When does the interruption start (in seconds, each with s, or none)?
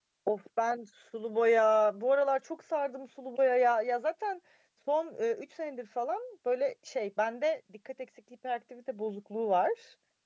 none